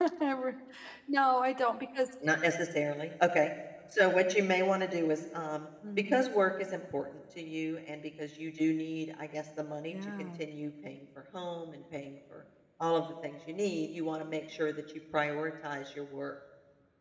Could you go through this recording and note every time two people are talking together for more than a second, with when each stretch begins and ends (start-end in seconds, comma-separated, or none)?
none